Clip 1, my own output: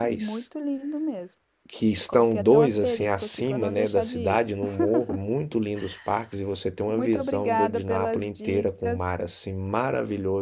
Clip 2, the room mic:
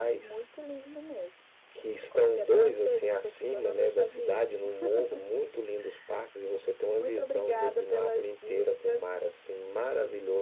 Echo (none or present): present